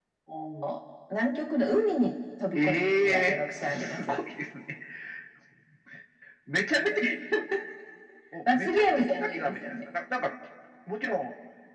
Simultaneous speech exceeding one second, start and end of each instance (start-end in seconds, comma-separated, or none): 2.5-4.1, 8.5-9.8